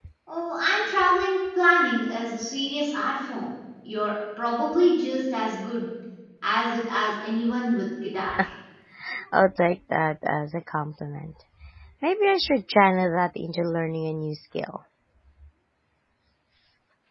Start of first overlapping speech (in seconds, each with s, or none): none